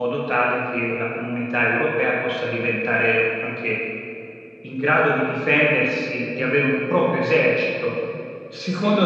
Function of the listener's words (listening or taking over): listening